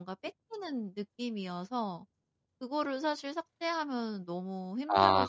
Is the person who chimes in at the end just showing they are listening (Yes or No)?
No